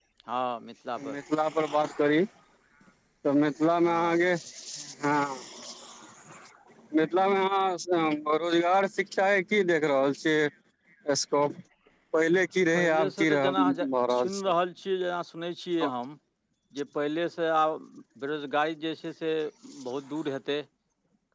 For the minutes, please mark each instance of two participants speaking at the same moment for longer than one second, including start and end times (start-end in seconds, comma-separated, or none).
12.8-14.5